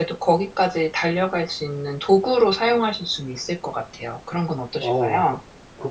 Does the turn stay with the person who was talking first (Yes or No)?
No